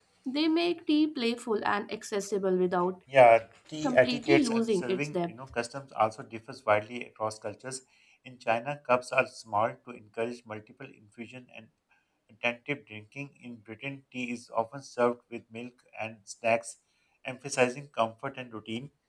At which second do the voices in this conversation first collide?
4 s

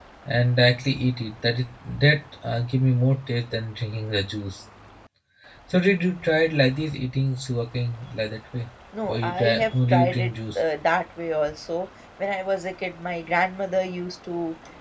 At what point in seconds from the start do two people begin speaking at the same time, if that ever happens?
9 s

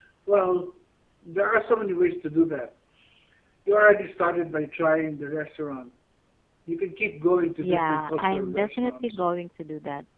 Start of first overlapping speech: 8 s

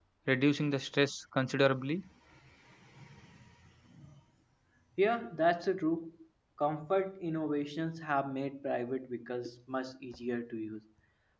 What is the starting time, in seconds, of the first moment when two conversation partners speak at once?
none

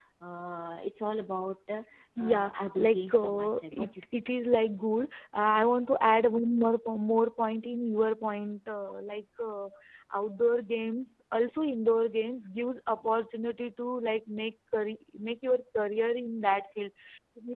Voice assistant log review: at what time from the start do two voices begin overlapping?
2 s

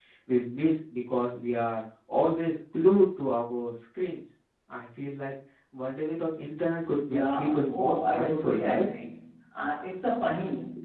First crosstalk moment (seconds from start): 7 s

